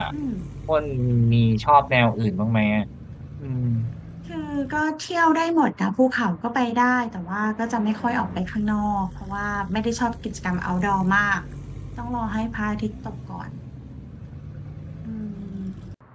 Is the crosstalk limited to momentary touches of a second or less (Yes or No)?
Yes